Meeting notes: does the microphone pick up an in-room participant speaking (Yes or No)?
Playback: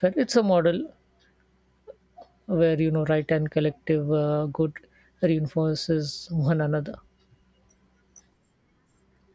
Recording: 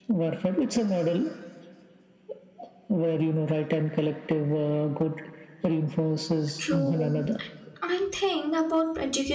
Yes